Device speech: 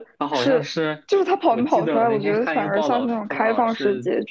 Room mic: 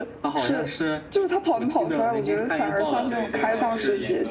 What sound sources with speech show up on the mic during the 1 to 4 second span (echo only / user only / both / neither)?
both